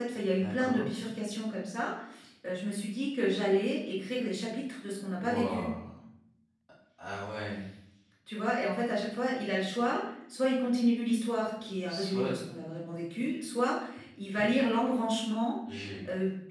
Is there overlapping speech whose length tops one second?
No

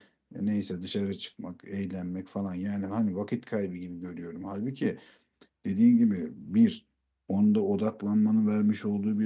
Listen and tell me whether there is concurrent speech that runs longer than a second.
No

